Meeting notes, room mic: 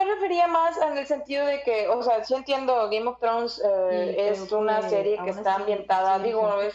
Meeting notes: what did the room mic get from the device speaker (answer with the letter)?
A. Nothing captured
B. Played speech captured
B